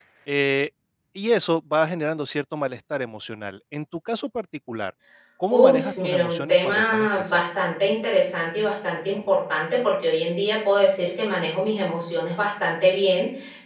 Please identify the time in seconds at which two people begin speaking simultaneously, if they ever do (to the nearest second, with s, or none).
6 s